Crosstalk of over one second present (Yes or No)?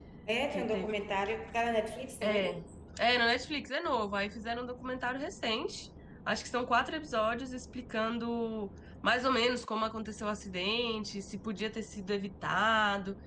No